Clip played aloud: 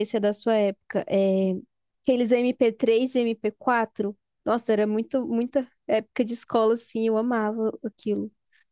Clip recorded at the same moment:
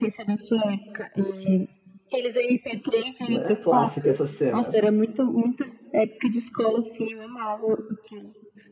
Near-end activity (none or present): present